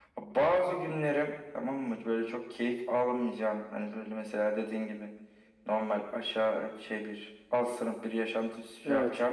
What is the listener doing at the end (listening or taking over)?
listening